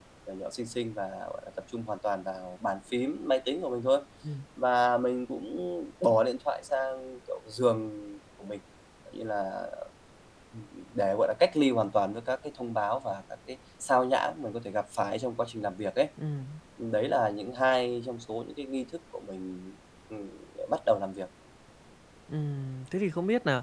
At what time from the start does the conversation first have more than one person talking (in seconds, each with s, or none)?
none